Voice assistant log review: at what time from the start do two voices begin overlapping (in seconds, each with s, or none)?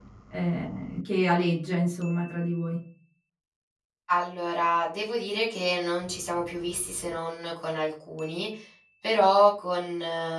none